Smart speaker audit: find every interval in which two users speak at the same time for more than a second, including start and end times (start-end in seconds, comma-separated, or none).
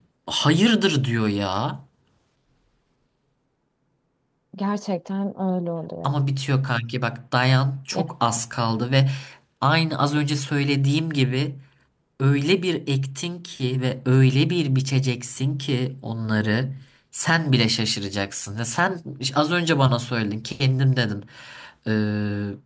none